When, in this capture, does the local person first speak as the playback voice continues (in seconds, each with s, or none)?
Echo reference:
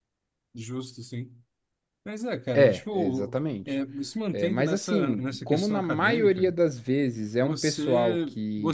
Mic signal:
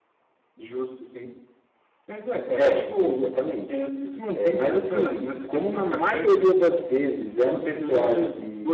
none